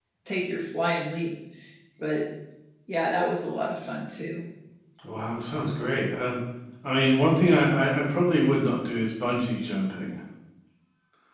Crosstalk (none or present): none